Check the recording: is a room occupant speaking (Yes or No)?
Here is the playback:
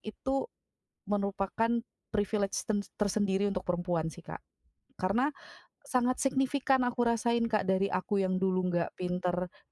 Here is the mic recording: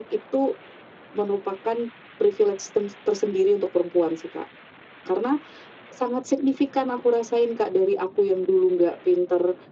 No